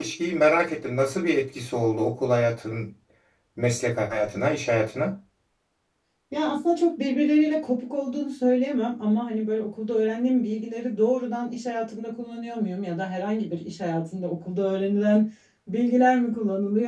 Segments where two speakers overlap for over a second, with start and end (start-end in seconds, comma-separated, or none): none